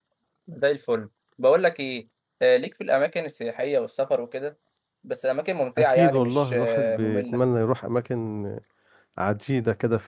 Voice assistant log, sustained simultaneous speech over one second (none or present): present